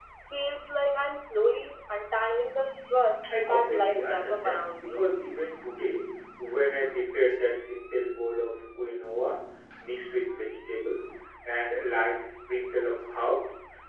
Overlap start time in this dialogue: 3.5 s

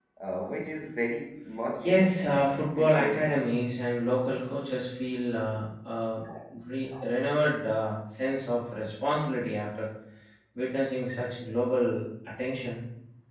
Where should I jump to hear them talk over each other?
1.8 s

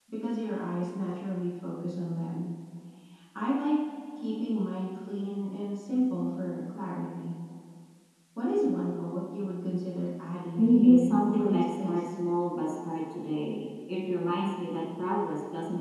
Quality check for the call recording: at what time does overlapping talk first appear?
10.6 s

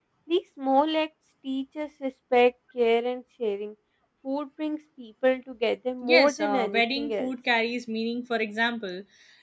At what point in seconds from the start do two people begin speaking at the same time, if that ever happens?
6.0 s

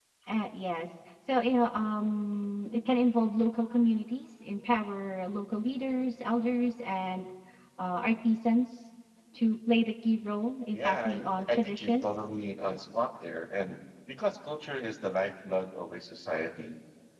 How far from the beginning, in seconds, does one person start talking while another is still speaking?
10.7 s

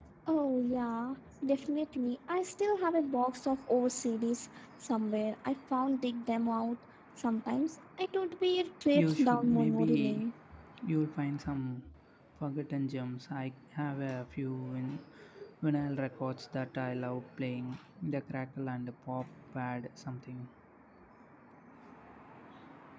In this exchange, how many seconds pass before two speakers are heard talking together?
8.9 s

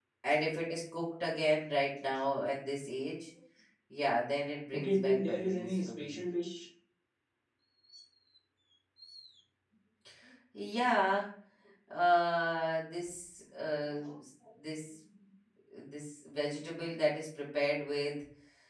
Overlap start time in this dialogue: 4.7 s

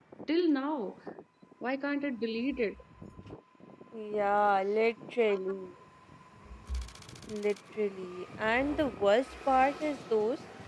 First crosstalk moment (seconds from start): none

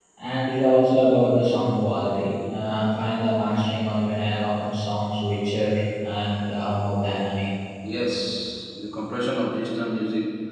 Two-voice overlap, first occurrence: none

